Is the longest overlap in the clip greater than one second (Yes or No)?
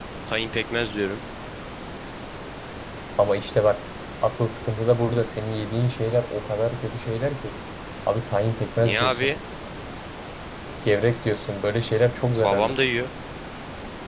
No